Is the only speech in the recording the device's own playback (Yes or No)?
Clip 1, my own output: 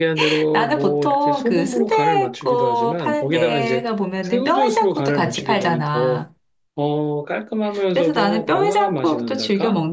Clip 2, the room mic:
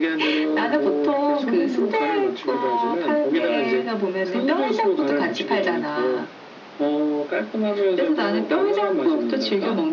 Yes